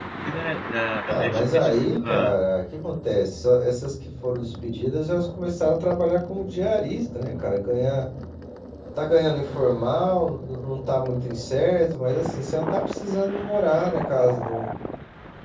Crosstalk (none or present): present